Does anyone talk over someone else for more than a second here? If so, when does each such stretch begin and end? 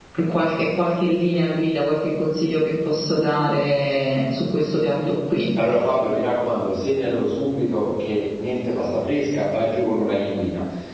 none

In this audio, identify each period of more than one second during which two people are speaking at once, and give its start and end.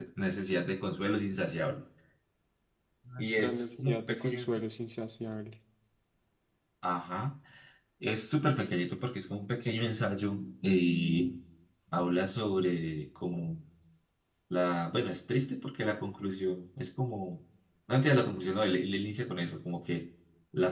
3.2-4.6

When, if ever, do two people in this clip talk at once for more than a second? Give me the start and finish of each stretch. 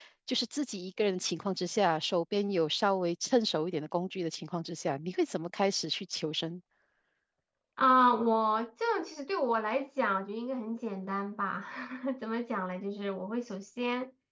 none

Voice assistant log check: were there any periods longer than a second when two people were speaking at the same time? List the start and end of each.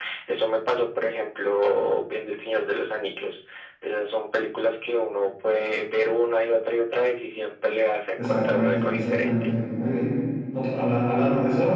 8.2-9.4

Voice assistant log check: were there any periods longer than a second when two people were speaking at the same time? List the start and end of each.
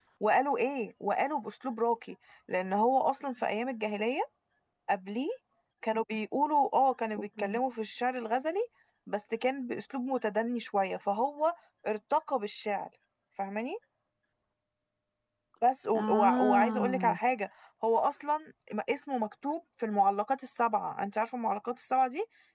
15.9-17.2

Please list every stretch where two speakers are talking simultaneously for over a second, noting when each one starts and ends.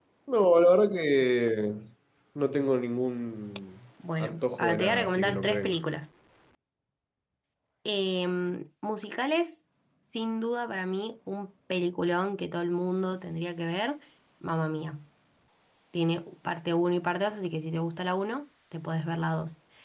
4.2-5.8

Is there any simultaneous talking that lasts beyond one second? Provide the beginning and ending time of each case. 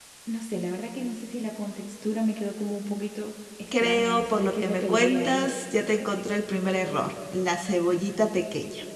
3.8-5.5

